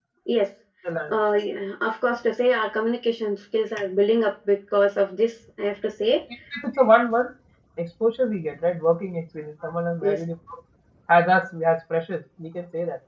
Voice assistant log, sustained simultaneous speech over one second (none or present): none